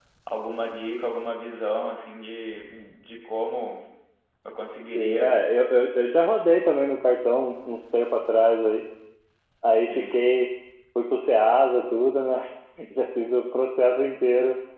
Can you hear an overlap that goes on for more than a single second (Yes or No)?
No